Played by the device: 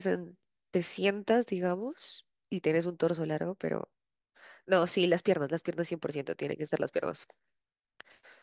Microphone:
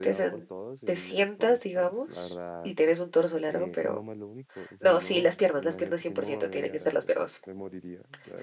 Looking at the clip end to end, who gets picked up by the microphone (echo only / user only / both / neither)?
both